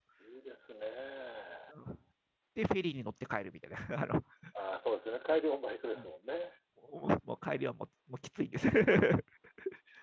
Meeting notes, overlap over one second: none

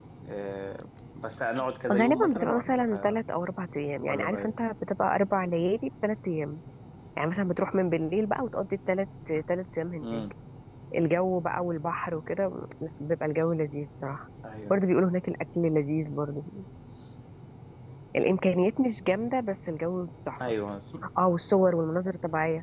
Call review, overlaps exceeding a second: present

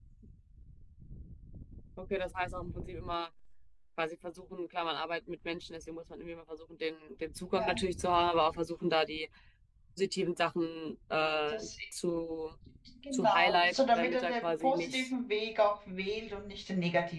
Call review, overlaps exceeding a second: present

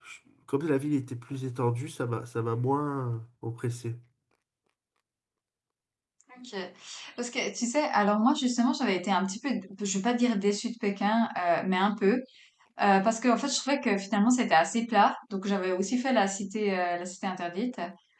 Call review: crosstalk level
none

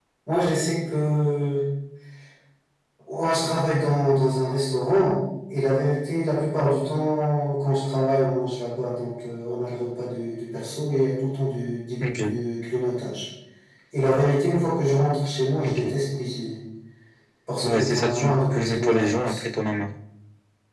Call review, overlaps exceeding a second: present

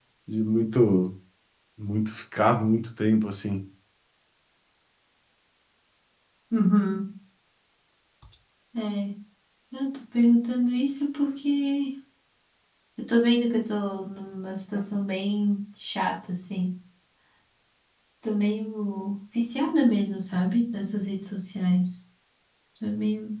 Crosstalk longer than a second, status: none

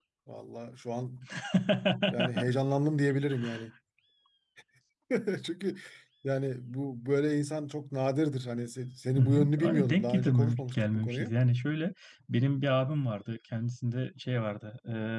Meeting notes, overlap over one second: present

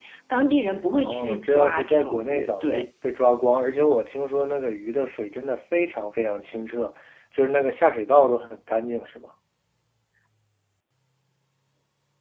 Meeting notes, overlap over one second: present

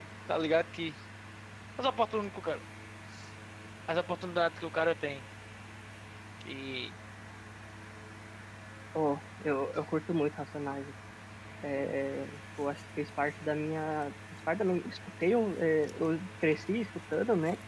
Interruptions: none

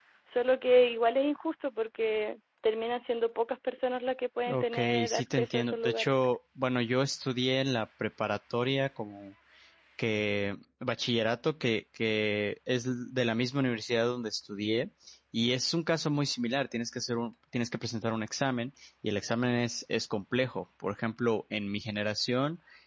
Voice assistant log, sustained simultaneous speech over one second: present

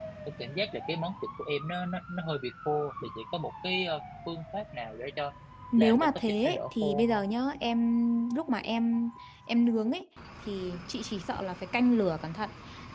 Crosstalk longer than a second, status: present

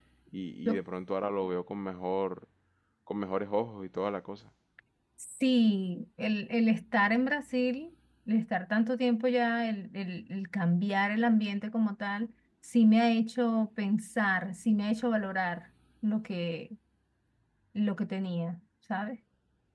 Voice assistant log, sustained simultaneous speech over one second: none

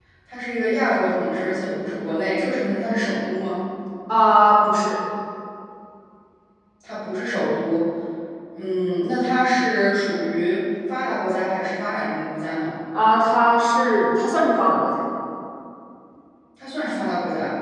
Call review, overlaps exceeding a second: none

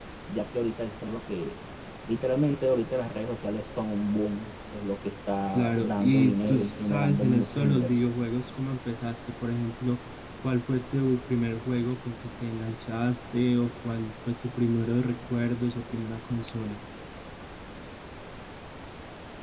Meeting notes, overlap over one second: present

